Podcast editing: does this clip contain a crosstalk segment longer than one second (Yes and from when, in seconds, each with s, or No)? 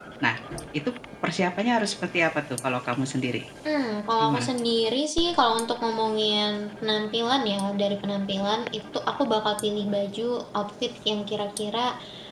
No